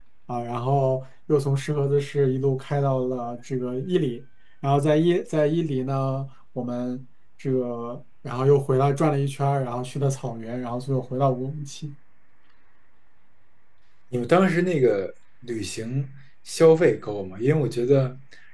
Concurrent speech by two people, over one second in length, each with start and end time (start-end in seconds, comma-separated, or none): none